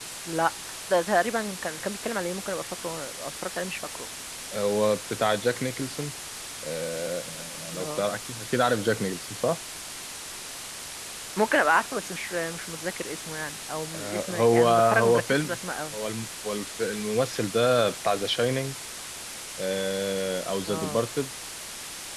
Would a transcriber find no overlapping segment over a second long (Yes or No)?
No